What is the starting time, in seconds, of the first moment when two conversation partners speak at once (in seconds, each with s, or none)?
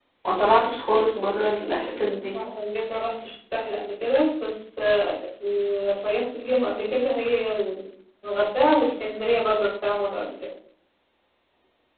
none